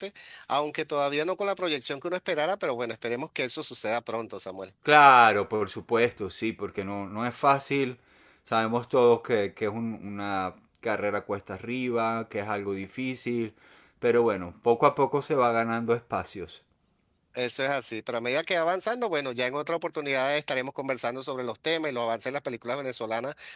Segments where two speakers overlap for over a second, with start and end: none

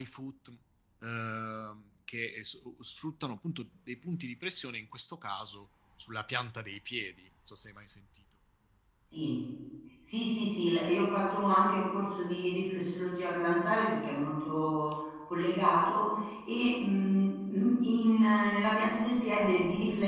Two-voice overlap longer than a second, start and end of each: none

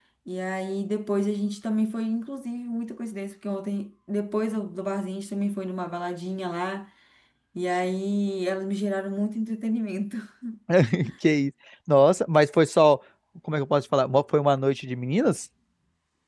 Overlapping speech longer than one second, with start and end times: none

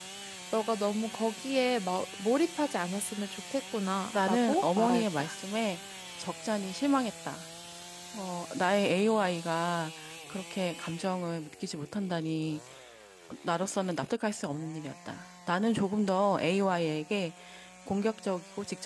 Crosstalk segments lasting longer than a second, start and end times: 4.1-5.3

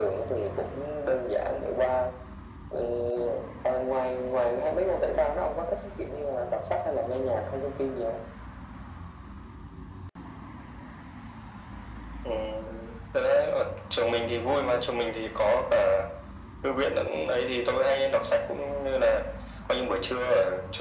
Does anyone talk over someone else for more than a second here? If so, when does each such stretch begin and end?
none

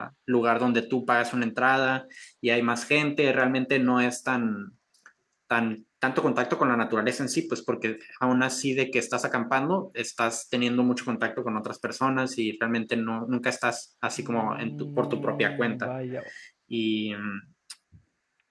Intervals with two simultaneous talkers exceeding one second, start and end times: 14.2-15.9

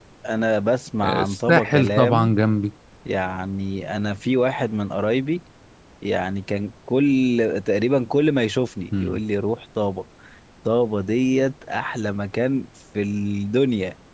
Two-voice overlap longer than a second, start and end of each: 1.0-2.3

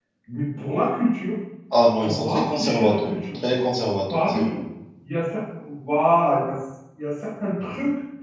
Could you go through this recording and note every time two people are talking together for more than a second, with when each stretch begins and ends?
2.0-3.4

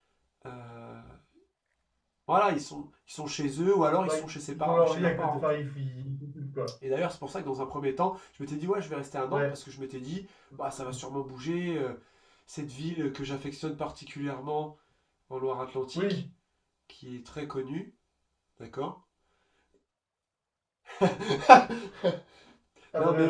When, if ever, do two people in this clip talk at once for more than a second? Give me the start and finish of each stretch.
4.0-5.4

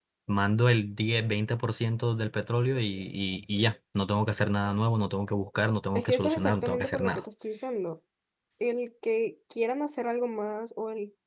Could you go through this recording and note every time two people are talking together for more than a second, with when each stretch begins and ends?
6.0-7.2

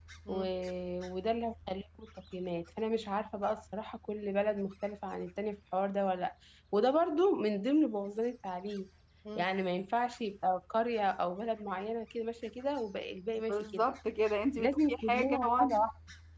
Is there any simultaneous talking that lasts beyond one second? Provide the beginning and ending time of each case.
14.6-15.8

